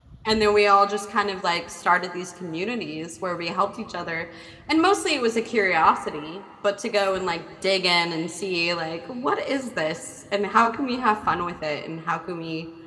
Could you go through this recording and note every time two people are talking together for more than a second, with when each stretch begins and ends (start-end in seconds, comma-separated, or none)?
none